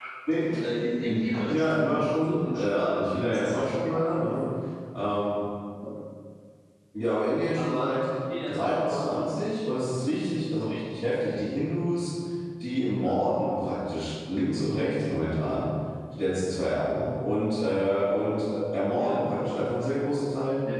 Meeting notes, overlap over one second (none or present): present